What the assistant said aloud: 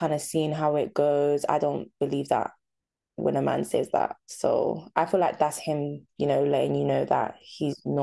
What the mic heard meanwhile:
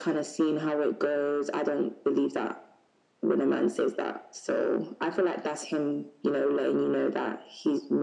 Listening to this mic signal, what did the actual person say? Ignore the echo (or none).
none